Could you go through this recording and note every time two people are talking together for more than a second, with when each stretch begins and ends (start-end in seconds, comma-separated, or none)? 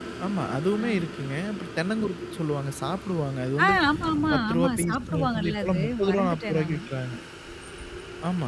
4.3-6.8